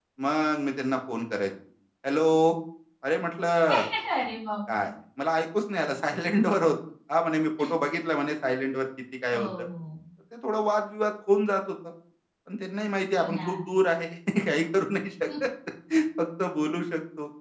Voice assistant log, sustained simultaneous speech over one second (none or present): none